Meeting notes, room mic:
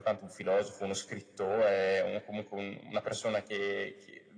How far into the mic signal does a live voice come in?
none

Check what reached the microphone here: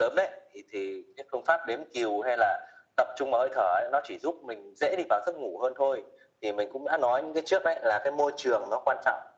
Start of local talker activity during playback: none

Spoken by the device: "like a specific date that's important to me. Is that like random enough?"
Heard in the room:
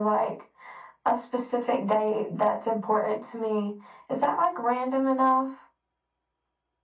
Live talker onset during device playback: none

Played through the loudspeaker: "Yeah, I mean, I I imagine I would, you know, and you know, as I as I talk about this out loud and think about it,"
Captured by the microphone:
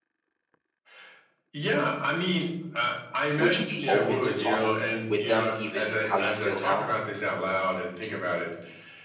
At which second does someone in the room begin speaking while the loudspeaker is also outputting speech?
3.3 s

